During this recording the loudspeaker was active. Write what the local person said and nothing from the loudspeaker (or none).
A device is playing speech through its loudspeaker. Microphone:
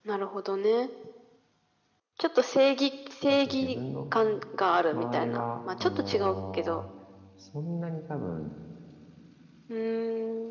う。あと自分の場合は、あのーそんなに多分